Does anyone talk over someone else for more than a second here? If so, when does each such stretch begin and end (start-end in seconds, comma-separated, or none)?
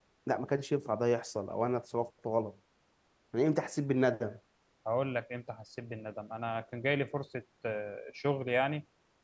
none